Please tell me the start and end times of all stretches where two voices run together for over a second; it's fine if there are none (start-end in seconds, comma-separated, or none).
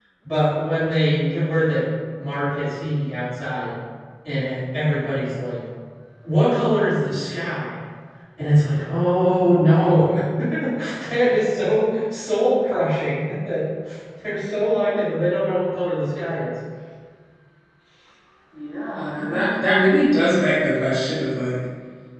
none